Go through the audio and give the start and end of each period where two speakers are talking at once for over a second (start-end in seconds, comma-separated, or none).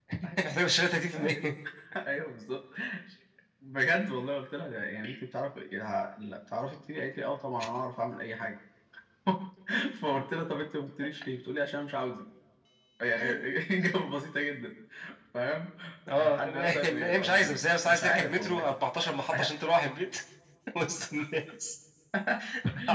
16.1-18.7